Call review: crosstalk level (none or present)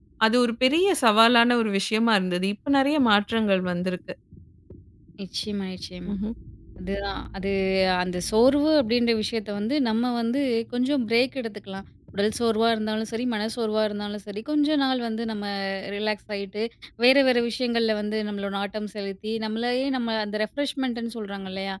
none